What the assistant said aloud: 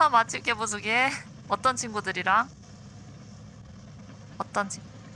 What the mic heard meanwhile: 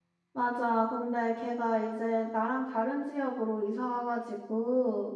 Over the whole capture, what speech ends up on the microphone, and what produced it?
user only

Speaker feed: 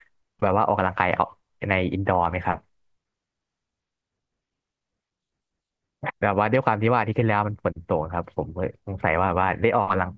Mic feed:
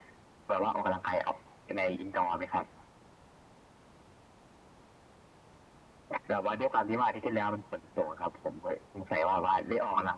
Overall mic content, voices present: echo only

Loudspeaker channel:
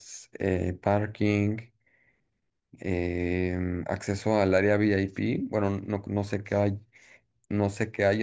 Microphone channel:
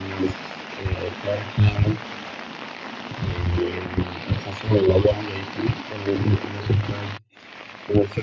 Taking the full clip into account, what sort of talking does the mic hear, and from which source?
echo only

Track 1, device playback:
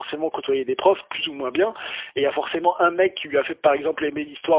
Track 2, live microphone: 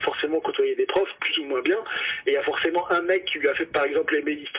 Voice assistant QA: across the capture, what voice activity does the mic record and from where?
echo only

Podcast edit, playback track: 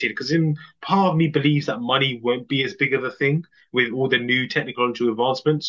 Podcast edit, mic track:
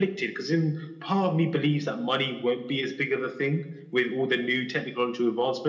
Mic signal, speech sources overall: echo only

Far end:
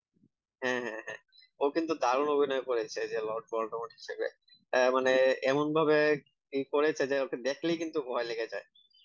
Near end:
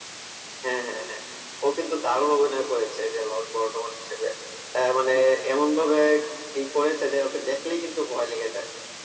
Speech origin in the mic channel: echo only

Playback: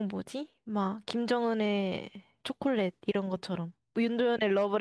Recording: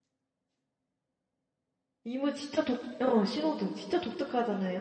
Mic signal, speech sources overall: user only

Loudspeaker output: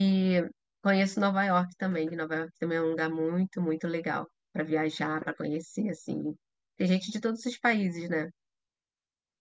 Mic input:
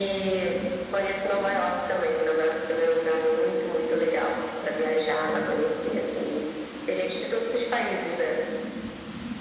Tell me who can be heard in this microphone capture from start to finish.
echo only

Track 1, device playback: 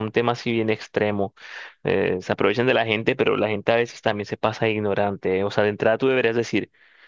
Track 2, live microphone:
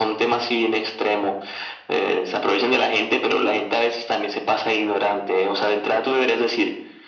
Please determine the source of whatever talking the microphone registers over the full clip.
echo only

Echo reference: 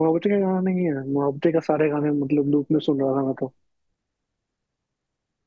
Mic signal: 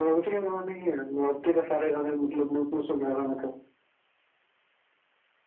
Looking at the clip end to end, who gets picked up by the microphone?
echo only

